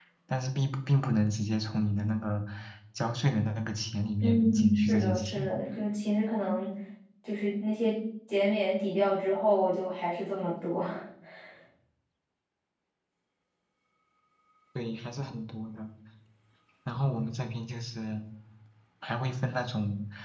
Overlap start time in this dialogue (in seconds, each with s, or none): 4.2 s